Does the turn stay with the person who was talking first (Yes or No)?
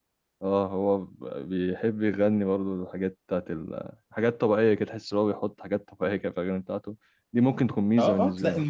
No